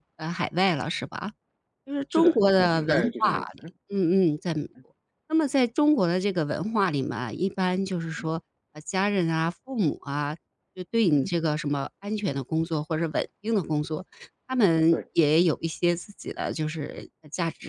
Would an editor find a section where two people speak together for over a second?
Yes, from 2.1 s

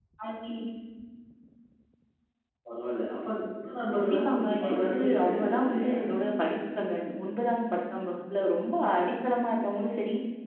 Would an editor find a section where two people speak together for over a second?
Yes, from 3.9 s

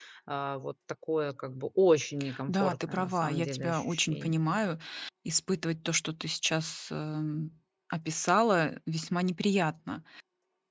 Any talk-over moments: Yes, from 2.5 s

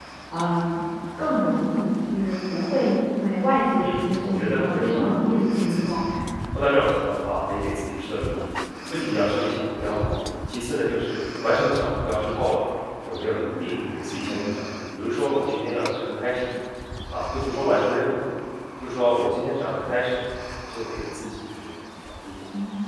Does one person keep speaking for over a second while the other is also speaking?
Yes, from 3.8 s

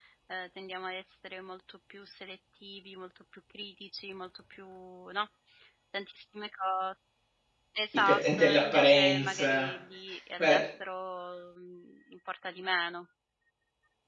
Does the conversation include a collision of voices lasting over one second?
Yes, from 7.9 s

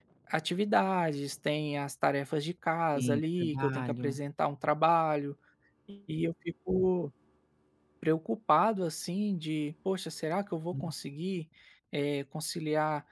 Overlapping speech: Yes, from 3.0 s

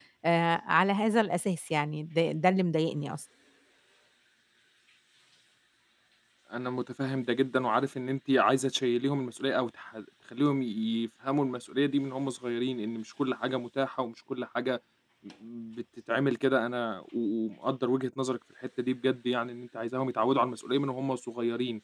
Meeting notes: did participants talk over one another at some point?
No

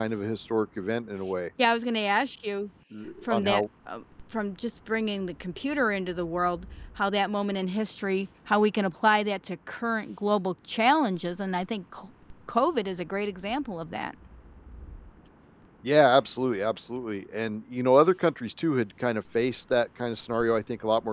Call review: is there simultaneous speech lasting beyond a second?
No

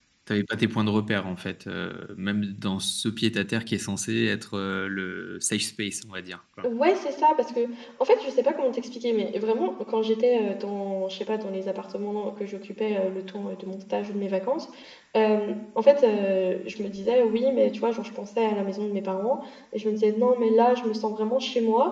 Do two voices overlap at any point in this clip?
No

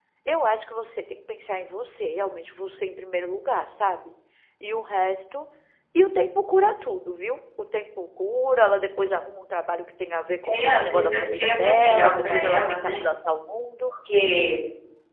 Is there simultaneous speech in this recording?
Yes, from 10.4 s

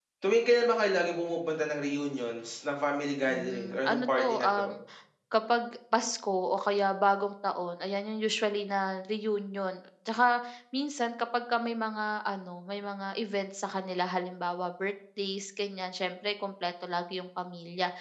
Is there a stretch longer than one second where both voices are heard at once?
Yes, from 3.3 s

